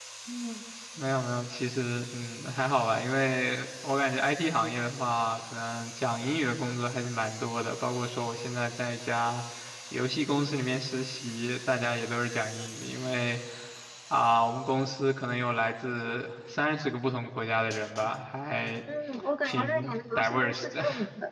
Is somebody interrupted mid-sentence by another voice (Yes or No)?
Yes